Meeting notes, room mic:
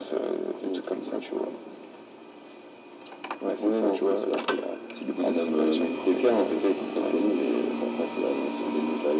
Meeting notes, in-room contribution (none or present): present